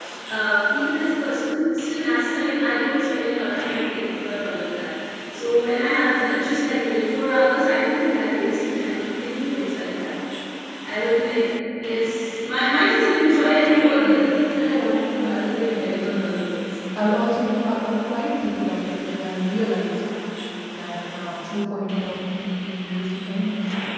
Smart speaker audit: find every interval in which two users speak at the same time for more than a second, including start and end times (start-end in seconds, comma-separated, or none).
15.2-16.4